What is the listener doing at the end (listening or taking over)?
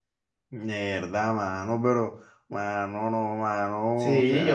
taking over